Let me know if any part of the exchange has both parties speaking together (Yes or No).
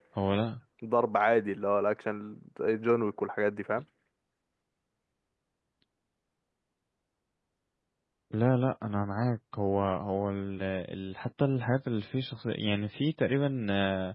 No